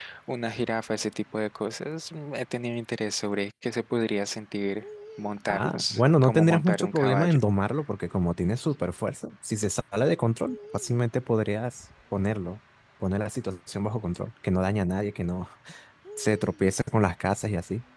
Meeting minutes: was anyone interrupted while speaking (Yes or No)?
Yes